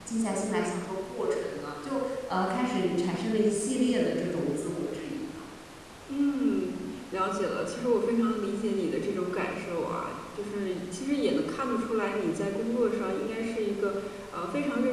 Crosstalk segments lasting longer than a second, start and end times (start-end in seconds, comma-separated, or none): none